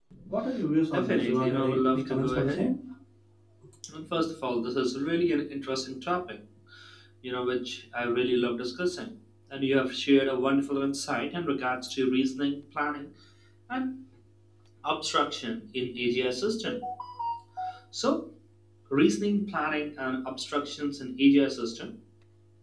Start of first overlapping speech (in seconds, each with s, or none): 0.9 s